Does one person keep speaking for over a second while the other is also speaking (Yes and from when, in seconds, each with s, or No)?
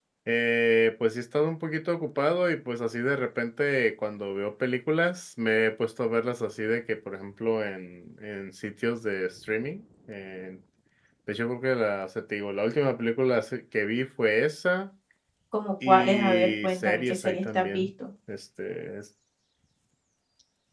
Yes, from 15.9 s